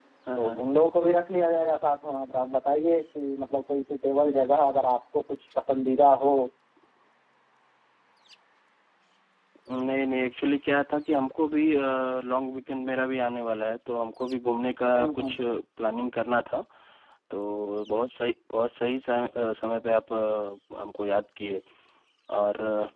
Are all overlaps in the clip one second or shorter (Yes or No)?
Yes